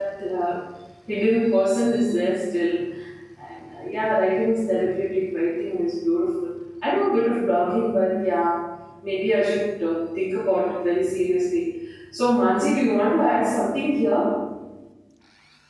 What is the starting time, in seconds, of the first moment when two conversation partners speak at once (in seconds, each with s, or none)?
none